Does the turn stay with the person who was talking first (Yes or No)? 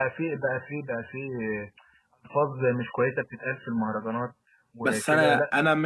No